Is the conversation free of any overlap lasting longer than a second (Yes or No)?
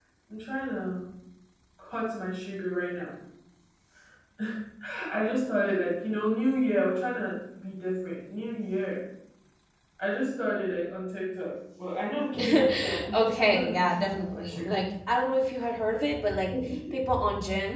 No